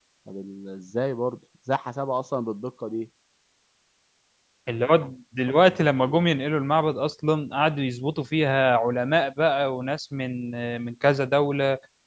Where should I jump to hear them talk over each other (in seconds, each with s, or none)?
none